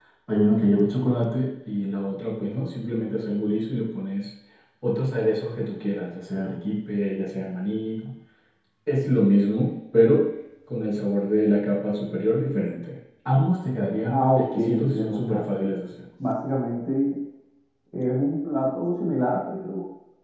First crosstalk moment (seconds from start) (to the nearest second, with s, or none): 14 s